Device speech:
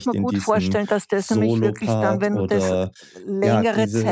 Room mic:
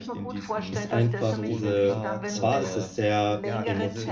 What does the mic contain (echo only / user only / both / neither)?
both